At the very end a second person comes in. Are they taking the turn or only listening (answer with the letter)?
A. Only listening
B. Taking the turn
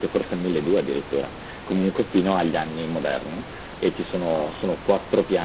A